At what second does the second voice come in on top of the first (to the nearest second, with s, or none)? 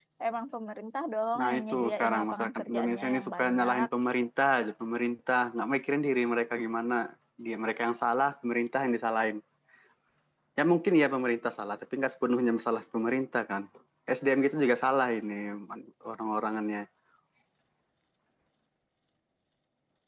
1 s